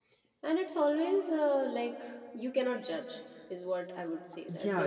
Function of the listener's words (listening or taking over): taking over